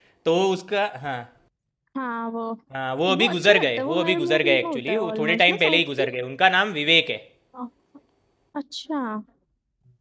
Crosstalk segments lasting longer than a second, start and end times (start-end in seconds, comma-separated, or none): 3.2-6.1